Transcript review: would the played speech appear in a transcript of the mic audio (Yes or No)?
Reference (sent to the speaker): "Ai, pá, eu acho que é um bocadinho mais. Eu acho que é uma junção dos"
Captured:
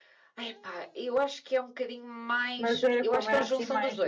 Yes